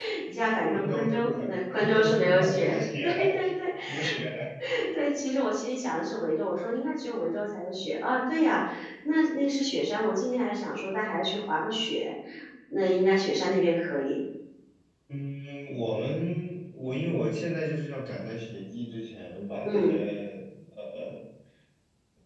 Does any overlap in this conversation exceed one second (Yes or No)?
Yes